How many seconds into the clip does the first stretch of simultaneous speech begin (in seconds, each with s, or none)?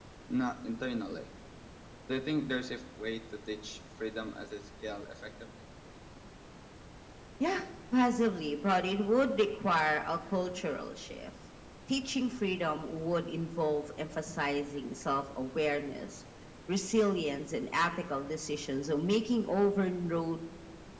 none